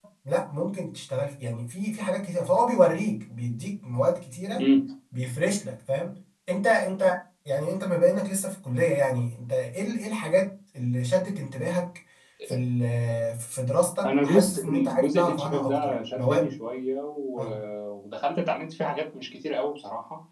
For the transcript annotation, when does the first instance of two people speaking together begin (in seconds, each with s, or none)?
14.0 s